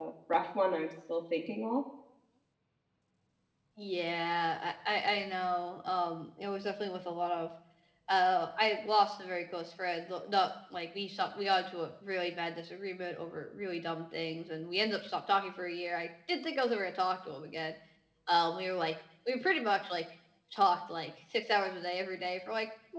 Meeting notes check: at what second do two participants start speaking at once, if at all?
none

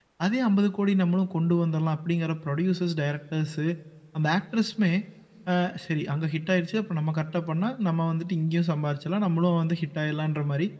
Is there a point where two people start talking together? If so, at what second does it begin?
none

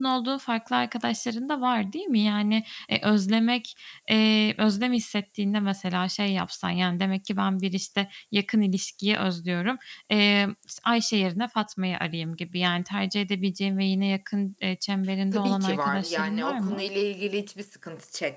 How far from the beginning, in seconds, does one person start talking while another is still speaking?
15.3 s

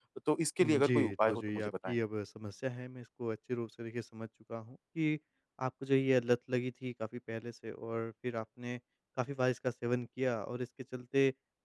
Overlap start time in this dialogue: 0.6 s

